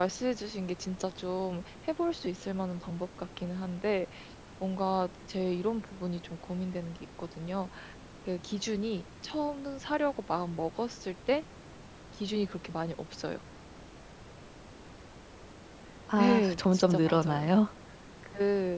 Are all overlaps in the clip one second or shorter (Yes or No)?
No